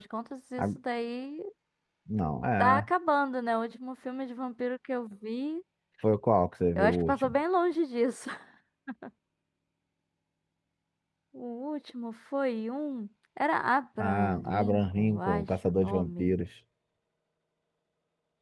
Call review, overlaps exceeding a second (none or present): present